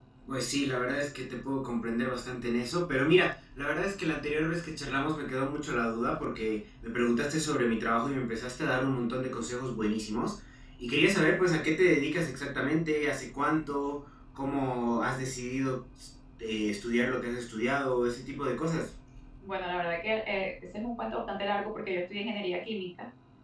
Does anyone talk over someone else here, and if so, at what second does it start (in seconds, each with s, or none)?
none